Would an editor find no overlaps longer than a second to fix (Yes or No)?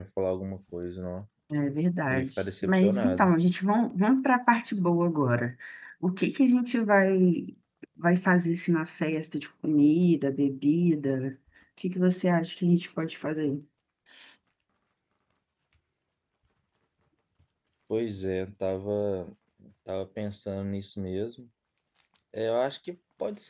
No